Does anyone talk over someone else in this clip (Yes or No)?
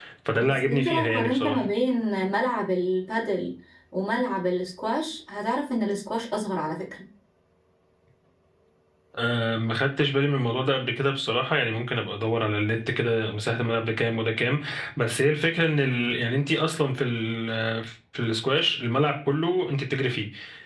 Yes